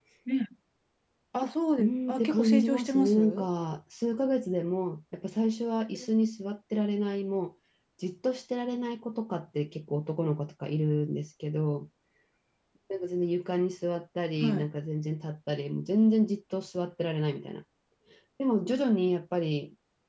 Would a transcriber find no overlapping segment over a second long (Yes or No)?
No